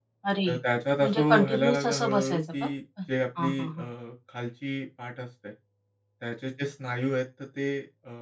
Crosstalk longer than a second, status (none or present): present